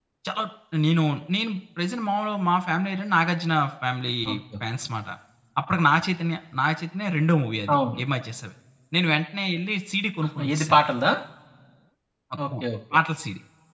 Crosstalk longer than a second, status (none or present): none